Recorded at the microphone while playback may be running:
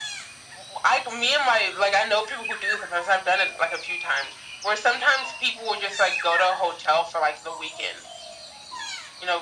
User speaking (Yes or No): No